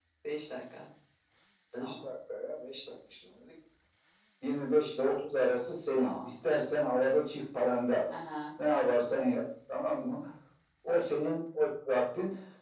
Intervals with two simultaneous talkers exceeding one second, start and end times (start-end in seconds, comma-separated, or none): none